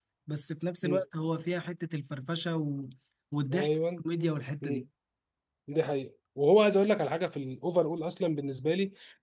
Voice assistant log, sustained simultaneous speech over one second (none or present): none